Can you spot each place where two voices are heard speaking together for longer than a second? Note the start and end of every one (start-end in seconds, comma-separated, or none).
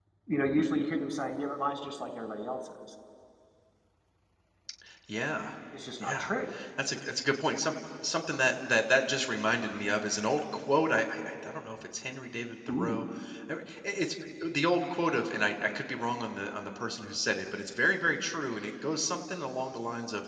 none